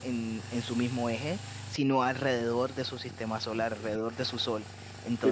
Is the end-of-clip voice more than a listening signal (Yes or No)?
Yes